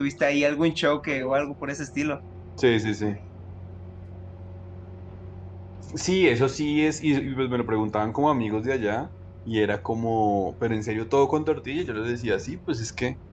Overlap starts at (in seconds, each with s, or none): none